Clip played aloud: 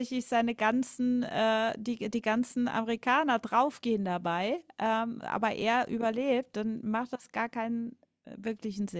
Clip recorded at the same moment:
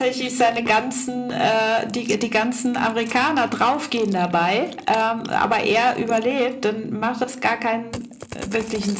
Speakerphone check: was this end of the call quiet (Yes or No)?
Yes